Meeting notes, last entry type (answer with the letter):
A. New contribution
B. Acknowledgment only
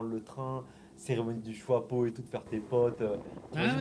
B